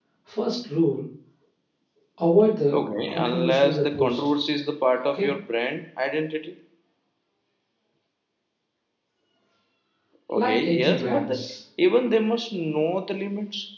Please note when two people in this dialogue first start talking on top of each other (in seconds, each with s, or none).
2.7 s